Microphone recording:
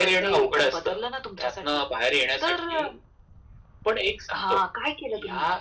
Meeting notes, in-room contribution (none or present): none